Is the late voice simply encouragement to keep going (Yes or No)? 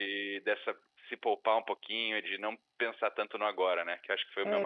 No